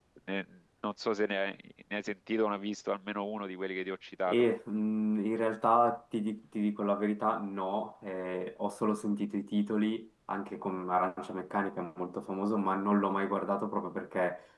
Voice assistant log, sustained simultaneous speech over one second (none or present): none